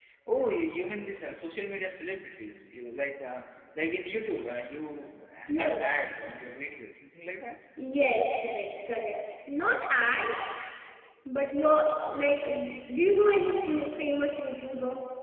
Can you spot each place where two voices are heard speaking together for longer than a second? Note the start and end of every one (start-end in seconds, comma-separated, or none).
none